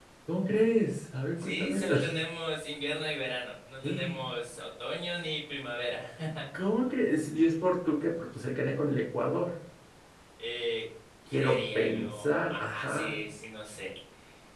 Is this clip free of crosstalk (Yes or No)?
No